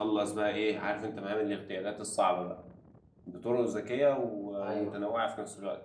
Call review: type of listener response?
listening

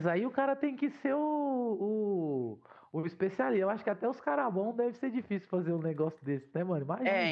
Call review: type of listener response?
taking over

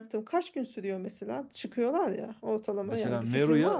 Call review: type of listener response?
taking over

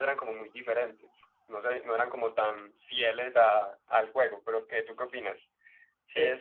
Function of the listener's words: taking over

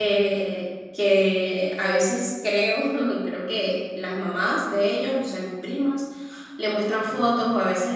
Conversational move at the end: listening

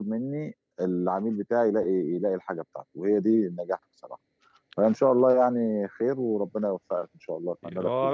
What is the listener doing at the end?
taking over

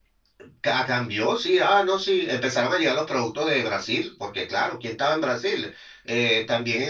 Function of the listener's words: listening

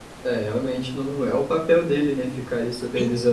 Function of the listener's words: taking over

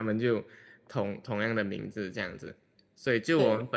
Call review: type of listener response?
listening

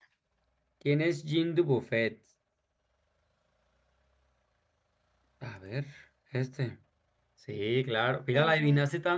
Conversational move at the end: listening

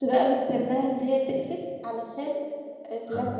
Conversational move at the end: taking over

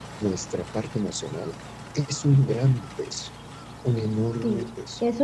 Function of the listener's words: taking over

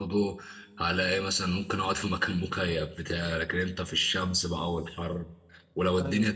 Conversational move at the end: listening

